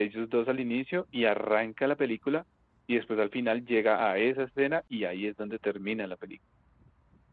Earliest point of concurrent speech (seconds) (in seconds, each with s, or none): none